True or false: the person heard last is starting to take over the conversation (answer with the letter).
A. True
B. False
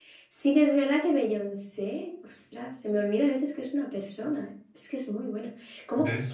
B